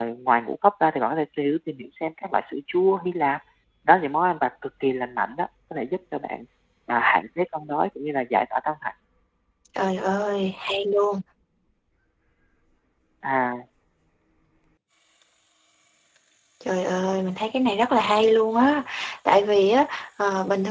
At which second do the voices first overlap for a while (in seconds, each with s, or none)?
none